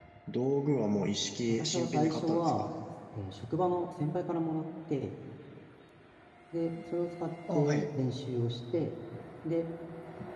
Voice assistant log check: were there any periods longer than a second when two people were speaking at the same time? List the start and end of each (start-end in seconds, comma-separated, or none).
1.5-2.7